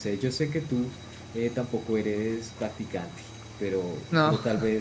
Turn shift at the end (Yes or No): No